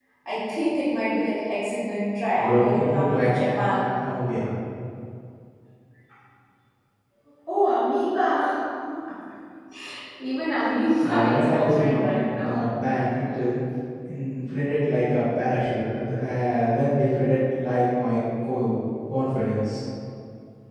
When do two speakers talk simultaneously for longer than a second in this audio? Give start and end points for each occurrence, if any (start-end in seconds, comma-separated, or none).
2.4-3.9, 11.0-12.6